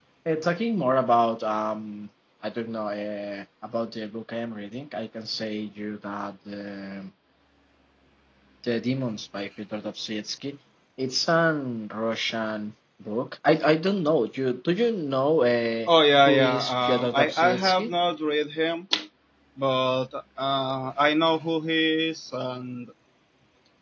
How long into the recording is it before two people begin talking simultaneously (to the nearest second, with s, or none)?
16 s